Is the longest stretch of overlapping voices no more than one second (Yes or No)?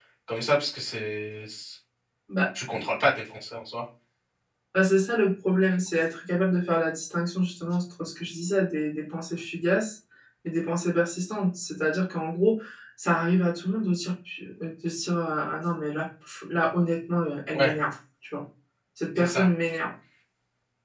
Yes